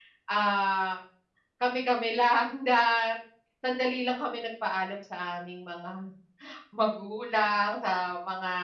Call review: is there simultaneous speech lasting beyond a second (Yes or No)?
No